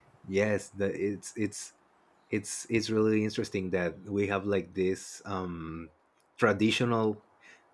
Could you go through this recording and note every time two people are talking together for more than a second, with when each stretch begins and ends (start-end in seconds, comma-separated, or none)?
none